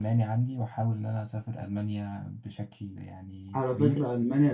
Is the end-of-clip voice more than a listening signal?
Yes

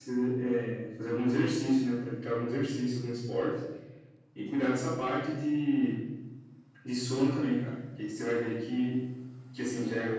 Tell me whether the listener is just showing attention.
Yes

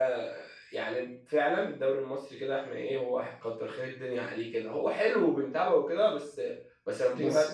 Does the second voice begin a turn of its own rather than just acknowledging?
No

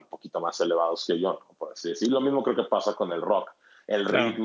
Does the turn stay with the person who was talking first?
Yes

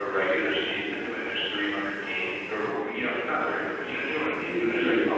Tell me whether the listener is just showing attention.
Yes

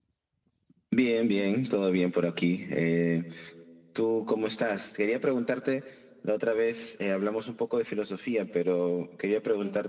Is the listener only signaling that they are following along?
Yes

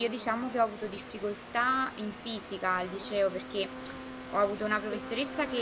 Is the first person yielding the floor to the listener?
No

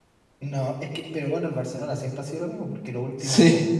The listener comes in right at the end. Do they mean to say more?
No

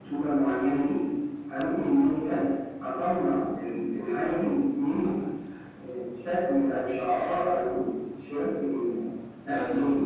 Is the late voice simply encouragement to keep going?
No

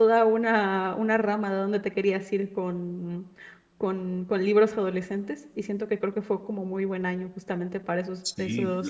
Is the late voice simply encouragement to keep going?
No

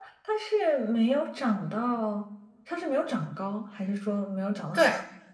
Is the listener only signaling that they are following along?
No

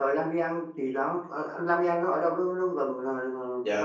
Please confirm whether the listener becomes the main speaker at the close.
Yes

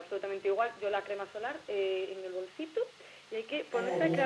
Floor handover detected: No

